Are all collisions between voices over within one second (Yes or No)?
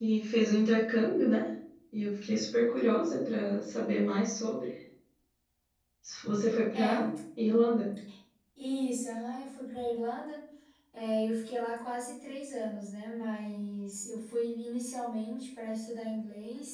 Yes